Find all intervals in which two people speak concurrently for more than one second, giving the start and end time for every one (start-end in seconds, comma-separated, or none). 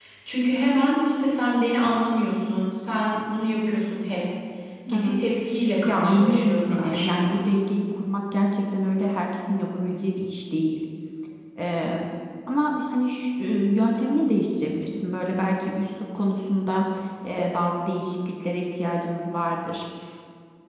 5.9-7.4